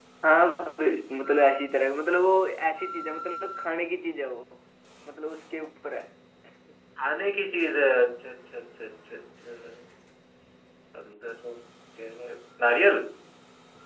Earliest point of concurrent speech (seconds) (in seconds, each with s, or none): none